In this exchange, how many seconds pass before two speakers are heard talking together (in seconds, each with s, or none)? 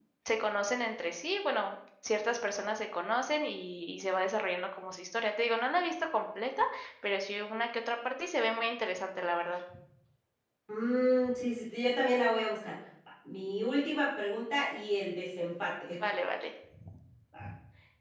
none